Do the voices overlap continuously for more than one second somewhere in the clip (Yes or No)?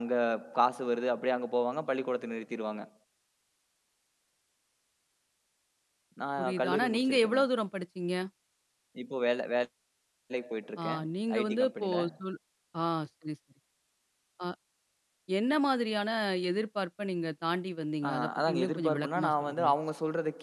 Yes